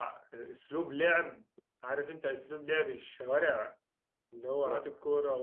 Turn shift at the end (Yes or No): No